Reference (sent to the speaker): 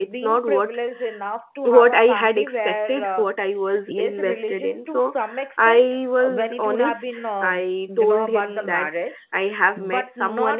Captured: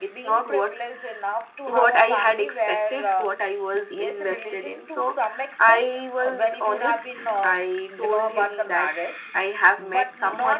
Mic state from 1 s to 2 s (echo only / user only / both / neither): echo only